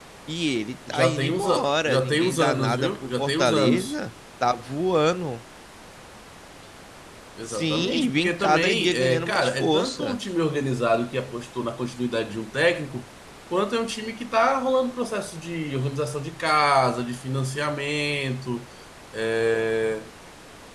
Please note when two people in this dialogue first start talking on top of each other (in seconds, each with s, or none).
0.9 s